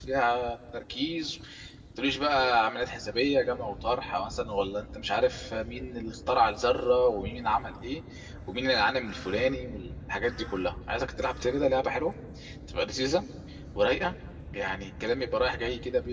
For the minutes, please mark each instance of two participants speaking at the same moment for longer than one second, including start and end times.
none

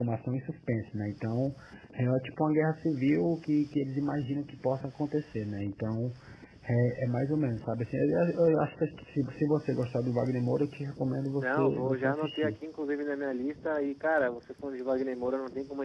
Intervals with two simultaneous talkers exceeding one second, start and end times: 11.3-12.6

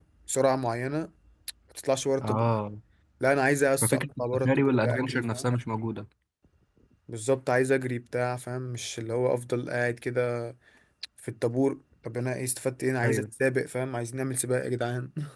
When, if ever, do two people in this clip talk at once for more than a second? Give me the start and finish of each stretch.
3.8-5.5

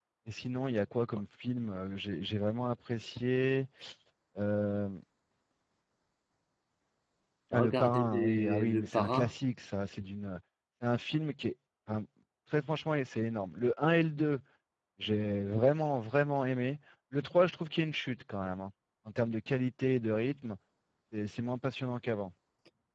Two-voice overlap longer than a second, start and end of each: 7.5-9.3

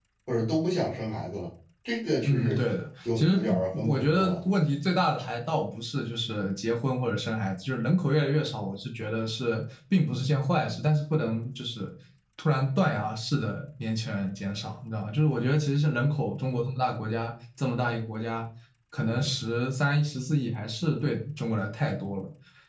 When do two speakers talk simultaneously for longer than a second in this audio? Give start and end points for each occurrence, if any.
3.2-4.4

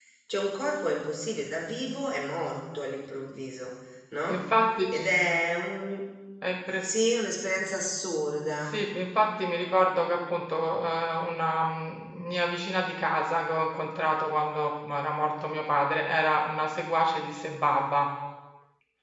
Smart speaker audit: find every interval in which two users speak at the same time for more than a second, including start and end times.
none

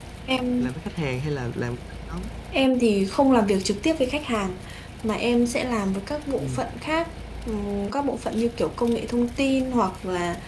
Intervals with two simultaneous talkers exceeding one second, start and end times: none

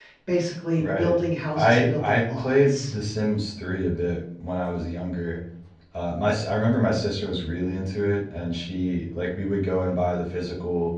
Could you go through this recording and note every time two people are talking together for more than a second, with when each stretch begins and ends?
1.6-2.9

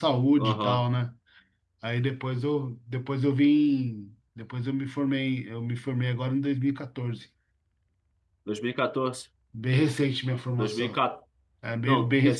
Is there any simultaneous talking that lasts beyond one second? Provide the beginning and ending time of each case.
none

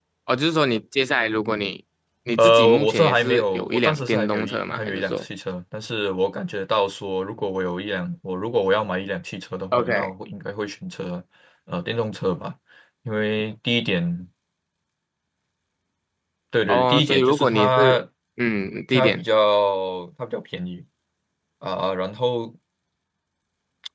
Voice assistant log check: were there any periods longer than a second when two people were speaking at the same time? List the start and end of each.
2.4-5.2, 16.7-18.0

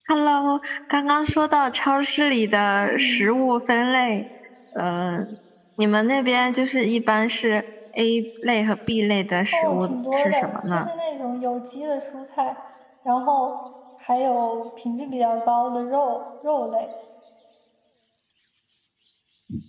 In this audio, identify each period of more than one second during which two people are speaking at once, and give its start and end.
9.5-10.9

